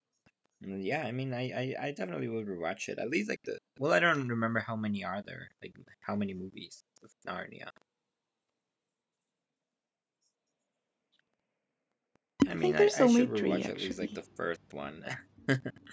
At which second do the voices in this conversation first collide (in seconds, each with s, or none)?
12.5 s